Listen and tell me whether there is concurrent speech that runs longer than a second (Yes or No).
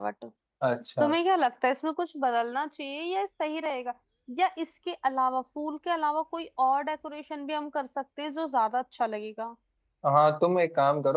No